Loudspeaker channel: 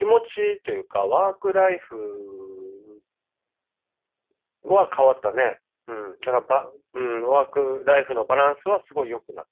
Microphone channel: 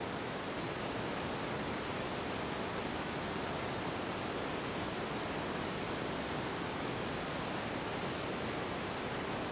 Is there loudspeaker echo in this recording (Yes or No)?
No